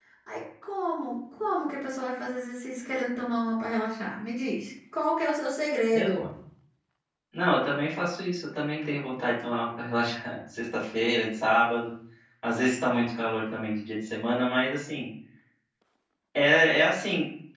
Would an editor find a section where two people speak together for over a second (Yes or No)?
No